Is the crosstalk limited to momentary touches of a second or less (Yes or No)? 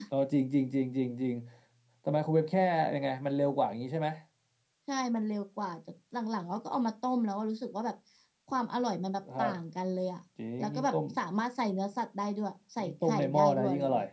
No